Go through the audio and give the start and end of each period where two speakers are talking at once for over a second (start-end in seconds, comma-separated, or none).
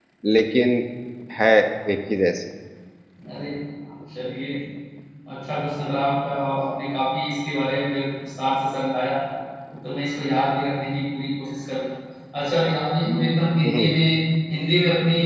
none